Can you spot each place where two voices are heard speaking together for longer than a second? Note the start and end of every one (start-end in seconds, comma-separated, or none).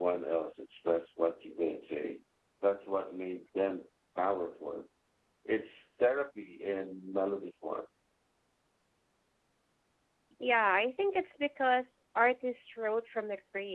none